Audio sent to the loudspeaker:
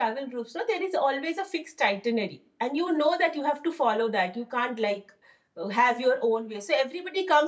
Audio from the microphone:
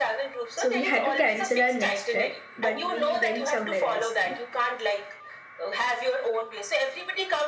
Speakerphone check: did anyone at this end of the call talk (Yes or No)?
Yes